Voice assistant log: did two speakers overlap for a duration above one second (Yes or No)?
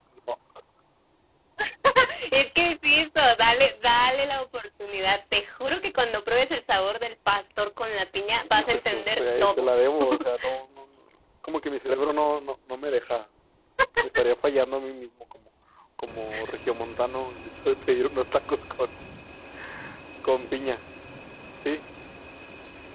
Yes